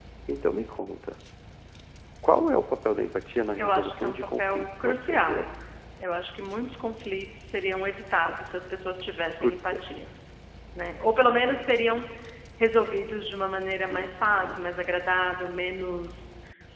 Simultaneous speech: Yes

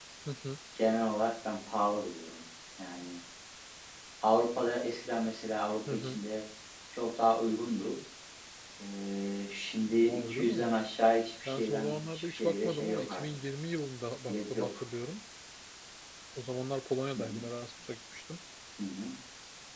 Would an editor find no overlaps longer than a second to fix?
No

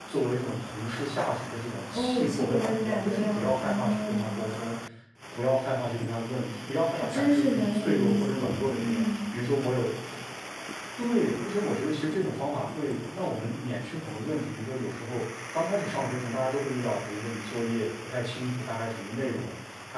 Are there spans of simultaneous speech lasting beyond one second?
Yes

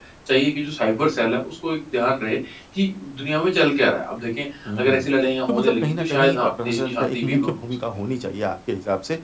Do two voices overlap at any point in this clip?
Yes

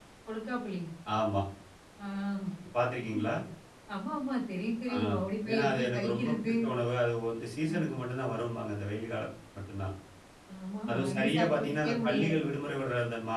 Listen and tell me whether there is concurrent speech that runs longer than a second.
Yes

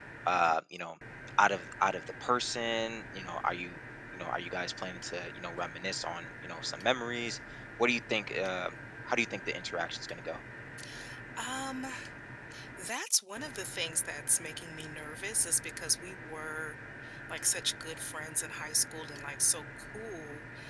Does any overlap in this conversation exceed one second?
No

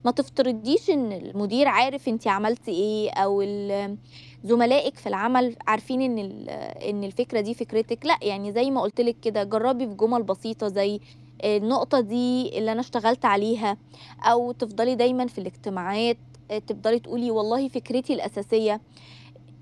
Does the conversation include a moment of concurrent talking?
No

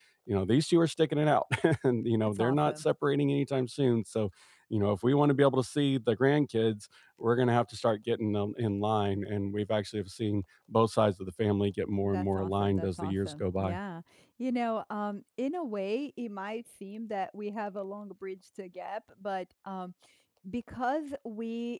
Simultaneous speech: Yes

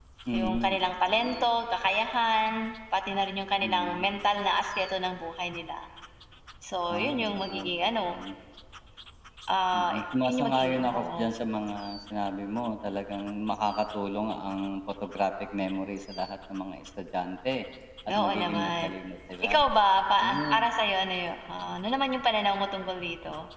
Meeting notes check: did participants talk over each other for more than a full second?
Yes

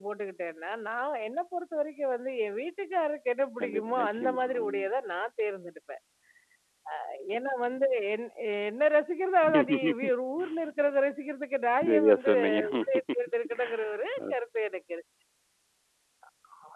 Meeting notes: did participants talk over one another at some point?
Yes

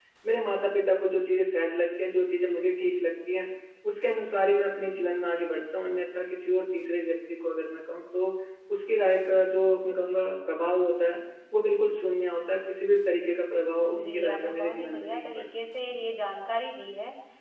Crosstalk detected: Yes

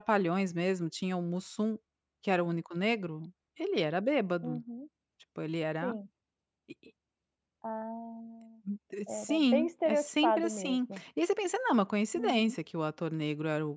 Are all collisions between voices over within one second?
No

